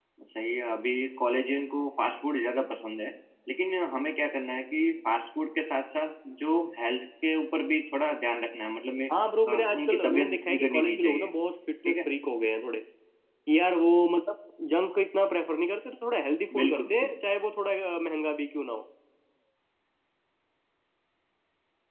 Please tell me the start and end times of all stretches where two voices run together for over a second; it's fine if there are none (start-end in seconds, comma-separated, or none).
9.5-11.3